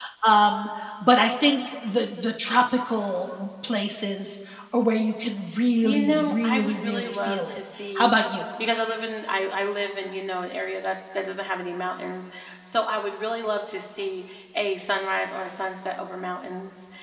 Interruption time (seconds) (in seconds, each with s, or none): 5.8 s